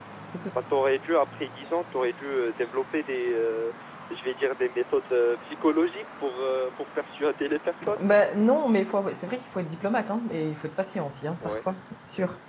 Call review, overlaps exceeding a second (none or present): none